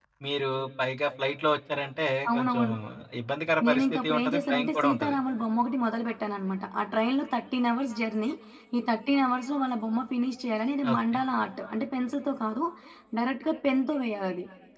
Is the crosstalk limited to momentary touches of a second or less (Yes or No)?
No